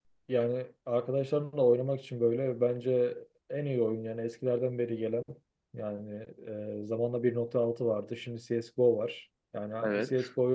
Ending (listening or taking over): listening